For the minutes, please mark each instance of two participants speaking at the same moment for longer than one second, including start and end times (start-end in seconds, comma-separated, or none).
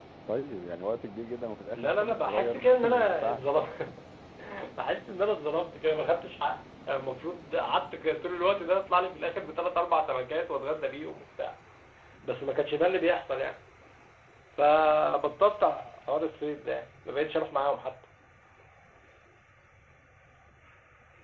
1.7-3.5